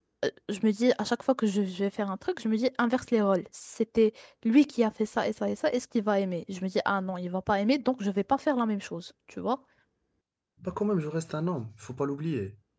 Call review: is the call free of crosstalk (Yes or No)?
Yes